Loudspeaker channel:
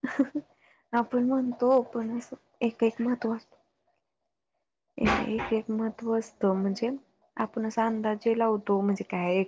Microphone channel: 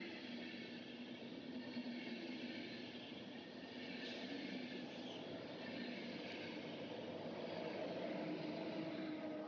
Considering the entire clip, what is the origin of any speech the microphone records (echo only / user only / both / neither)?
neither